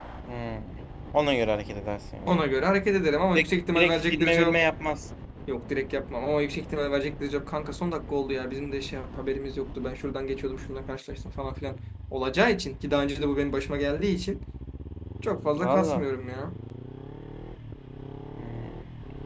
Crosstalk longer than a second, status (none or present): present